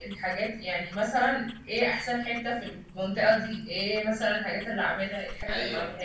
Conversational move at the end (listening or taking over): listening